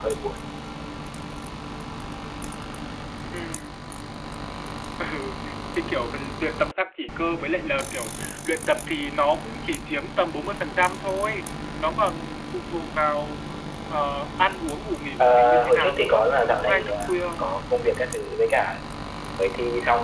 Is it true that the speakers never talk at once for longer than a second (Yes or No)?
No